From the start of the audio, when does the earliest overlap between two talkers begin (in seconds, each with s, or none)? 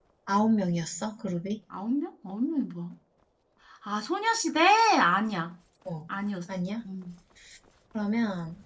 none